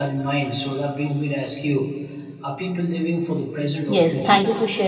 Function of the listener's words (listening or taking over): taking over